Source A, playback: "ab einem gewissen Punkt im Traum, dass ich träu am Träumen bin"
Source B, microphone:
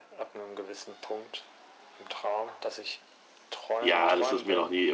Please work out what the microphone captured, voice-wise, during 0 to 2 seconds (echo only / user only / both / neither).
echo only